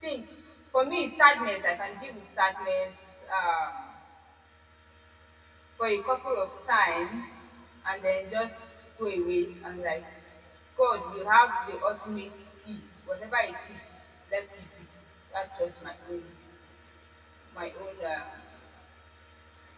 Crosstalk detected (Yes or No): No